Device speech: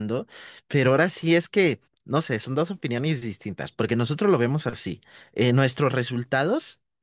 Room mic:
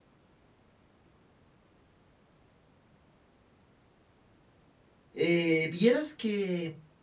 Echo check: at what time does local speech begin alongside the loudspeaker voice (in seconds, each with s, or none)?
5.1 s